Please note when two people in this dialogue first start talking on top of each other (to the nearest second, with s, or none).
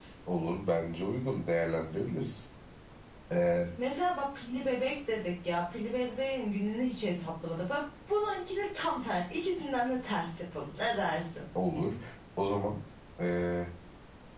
none